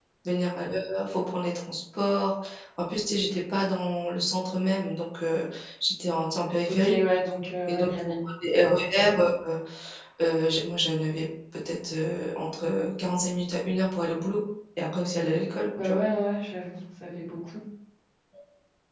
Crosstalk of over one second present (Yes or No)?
No